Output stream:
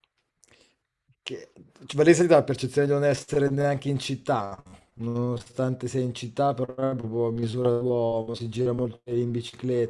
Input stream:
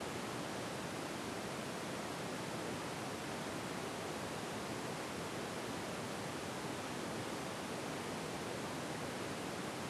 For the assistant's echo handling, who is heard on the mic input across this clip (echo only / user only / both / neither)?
neither